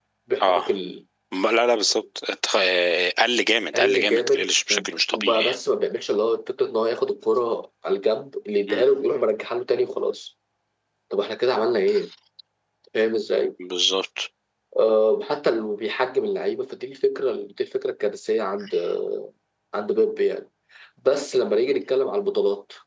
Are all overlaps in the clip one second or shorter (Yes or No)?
No